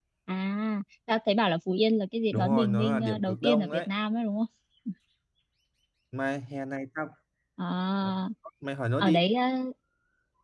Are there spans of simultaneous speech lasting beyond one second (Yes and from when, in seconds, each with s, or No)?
Yes, from 2.3 s